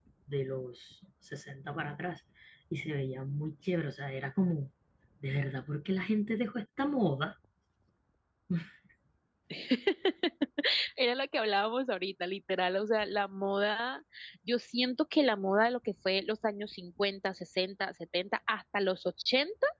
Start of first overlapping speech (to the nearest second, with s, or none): none